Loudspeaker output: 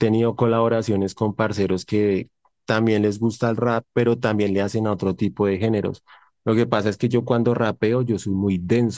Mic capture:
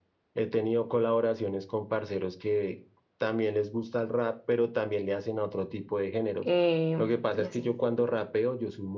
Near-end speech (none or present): present